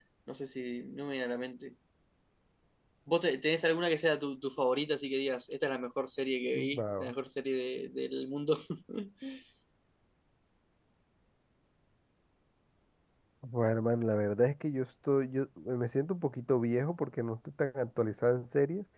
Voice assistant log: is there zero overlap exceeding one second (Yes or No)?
Yes